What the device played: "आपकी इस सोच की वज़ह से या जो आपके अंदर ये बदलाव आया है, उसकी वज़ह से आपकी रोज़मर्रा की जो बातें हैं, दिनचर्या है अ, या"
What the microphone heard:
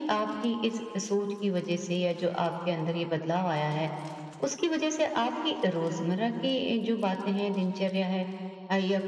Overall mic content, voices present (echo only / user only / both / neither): echo only